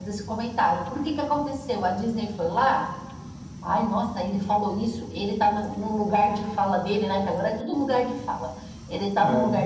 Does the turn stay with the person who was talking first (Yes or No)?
Yes